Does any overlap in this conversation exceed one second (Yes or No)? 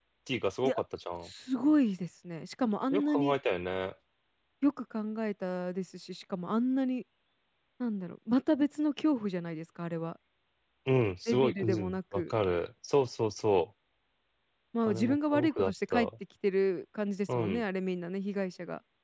Yes